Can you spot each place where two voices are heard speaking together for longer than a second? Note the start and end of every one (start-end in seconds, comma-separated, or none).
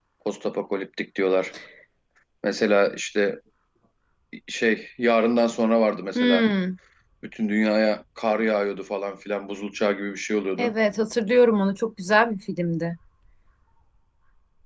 none